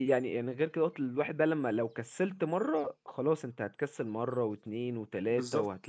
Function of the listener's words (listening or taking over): taking over